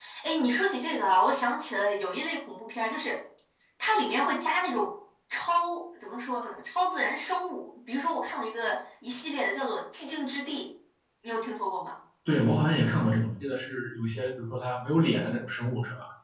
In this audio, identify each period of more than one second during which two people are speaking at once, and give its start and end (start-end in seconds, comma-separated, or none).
none